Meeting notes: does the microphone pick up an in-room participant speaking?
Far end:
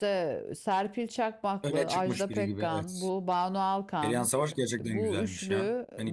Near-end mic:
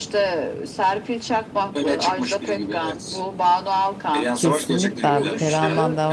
Yes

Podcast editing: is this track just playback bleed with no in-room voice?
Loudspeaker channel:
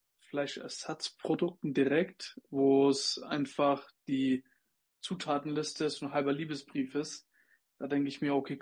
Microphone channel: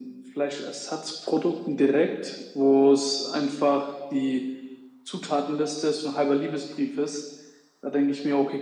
Yes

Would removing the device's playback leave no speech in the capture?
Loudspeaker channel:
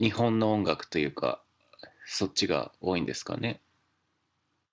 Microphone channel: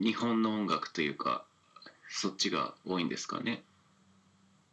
Yes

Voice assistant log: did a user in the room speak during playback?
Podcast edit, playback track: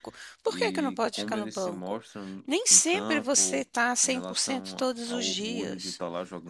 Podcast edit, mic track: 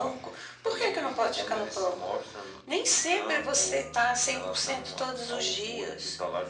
No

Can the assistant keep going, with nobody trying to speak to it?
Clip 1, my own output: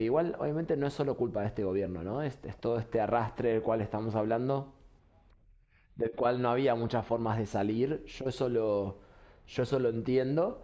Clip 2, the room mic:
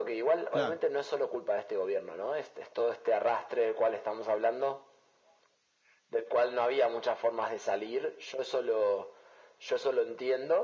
No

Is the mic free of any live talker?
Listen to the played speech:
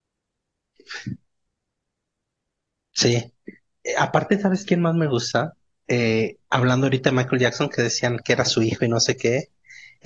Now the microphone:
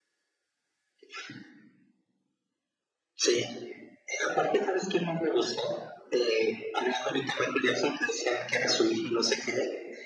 Yes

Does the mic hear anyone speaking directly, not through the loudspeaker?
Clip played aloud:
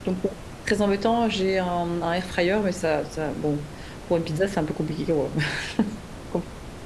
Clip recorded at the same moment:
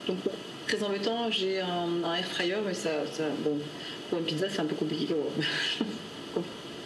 No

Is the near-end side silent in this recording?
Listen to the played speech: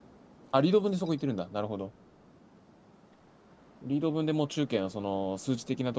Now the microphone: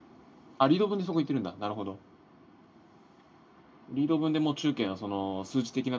Yes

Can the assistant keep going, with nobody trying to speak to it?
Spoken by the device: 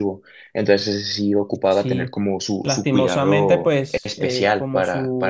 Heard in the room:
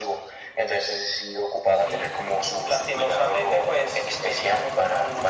Yes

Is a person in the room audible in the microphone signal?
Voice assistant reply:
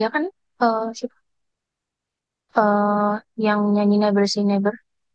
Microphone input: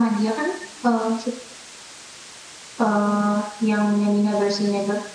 No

